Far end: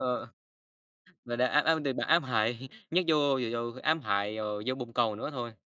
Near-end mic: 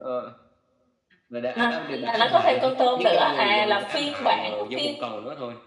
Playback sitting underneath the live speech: Yes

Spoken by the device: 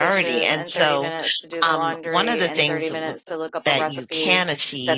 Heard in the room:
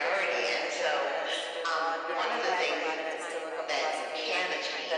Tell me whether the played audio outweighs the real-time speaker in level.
Yes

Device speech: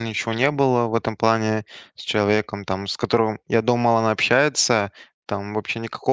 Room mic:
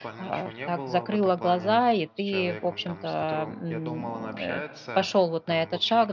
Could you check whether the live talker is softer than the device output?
No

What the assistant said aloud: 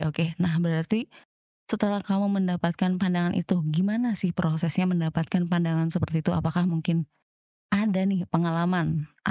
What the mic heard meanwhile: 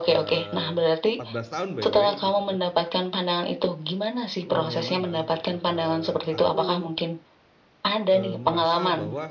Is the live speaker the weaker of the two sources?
Yes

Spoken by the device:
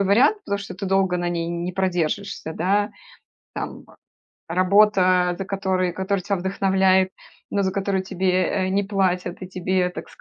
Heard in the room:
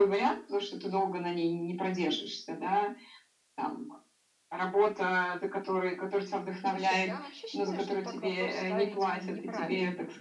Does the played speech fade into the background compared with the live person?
No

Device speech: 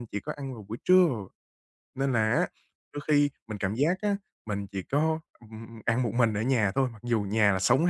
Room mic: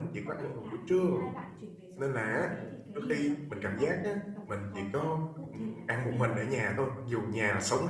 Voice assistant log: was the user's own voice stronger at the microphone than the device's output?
No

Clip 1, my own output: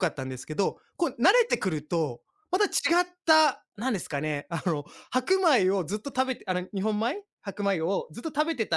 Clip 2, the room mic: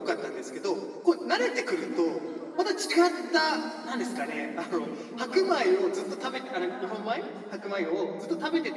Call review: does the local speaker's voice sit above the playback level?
No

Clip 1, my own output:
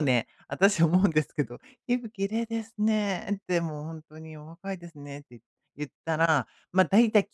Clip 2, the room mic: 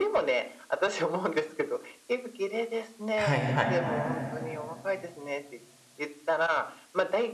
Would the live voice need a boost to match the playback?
No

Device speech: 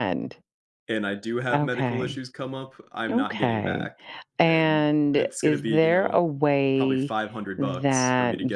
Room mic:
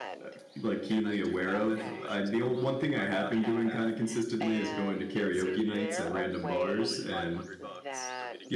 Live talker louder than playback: Yes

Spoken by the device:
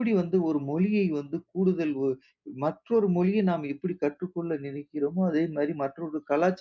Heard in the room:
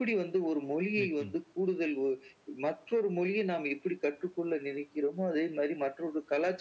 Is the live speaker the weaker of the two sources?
Yes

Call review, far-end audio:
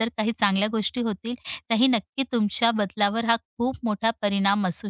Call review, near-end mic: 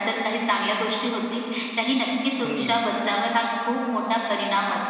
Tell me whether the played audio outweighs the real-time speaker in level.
Yes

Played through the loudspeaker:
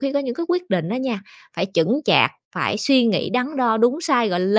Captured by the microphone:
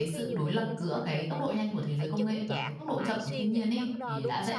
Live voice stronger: Yes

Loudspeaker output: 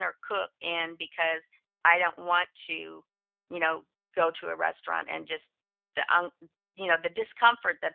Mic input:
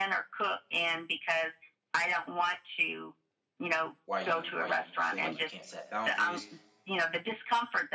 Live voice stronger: No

